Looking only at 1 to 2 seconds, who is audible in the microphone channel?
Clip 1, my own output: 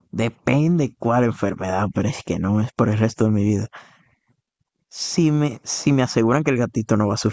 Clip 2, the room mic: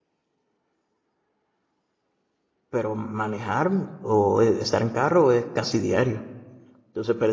neither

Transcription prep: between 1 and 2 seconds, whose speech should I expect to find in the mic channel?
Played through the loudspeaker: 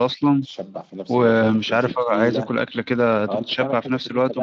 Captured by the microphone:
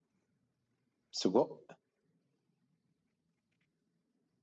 user only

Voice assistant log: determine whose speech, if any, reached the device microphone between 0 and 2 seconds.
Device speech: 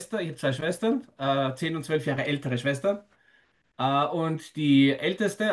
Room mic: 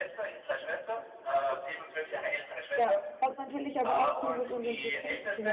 echo only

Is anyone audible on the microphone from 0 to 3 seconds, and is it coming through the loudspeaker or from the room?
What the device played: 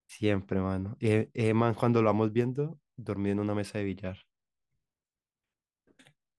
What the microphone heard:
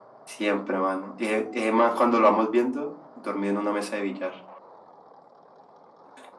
echo only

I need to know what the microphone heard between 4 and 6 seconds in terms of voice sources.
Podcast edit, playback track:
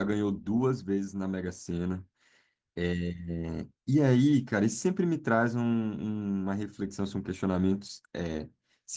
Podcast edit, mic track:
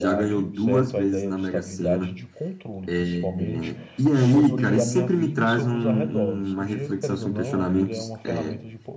both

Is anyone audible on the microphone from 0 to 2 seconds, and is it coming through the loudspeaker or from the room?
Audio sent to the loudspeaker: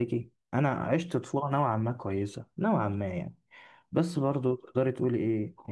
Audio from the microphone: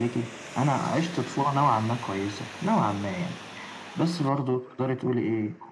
echo only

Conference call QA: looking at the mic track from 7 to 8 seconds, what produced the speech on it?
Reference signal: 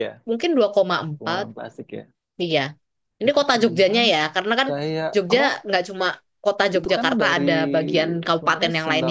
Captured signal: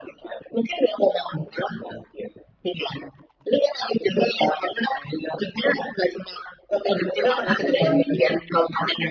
both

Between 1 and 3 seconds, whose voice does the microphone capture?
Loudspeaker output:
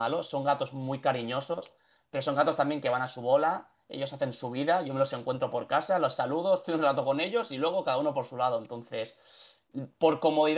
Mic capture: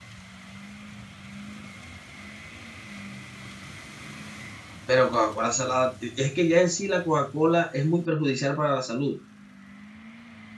neither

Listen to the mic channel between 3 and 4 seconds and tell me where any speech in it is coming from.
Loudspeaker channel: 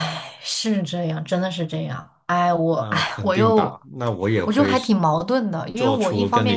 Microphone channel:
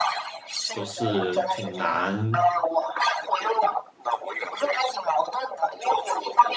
echo only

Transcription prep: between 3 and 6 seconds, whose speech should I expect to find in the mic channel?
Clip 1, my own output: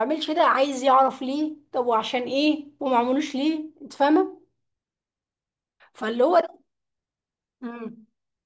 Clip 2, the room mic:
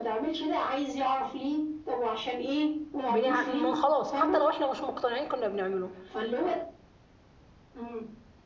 both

